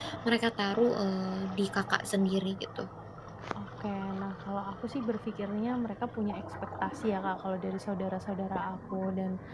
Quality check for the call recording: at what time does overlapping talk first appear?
none

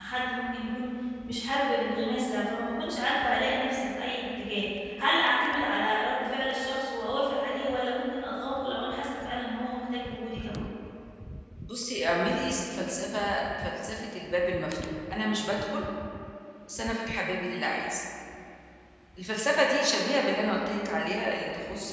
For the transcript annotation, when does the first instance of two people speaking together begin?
none

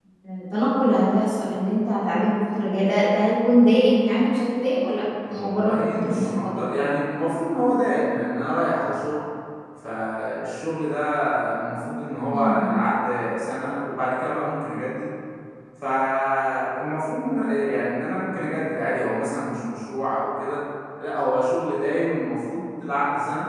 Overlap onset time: 5.3 s

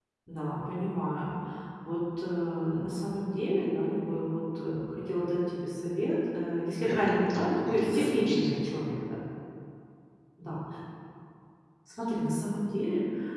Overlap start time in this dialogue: 6.8 s

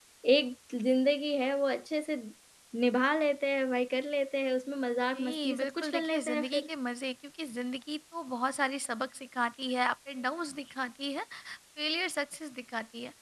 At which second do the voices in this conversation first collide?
5.1 s

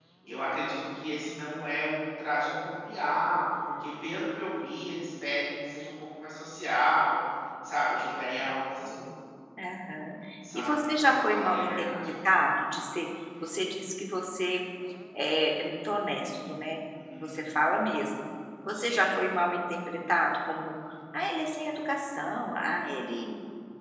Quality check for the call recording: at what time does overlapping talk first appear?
10.5 s

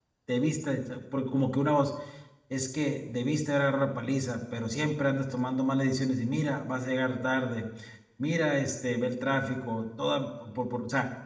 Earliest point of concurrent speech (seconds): none

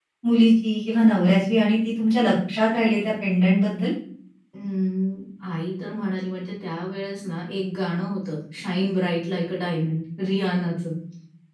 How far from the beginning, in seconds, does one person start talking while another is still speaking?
none

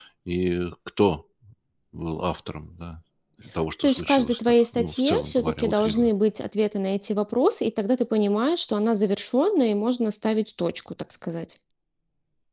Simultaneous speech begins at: 3.8 s

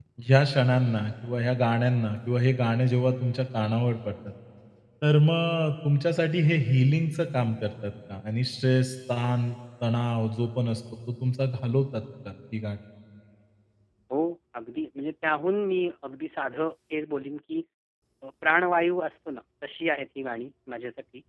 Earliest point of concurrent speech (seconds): none

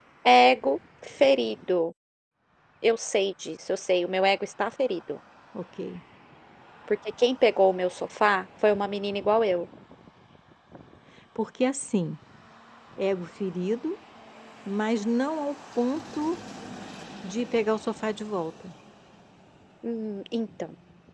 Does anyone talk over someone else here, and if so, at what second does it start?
none

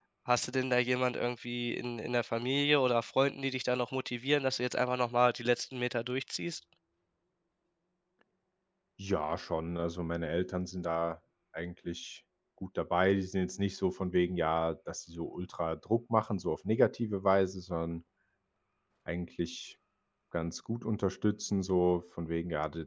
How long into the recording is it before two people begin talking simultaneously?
none

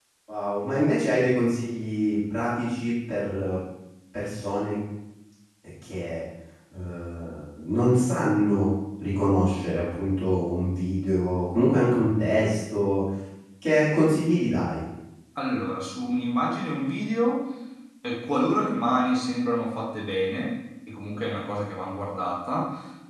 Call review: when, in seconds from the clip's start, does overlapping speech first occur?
none

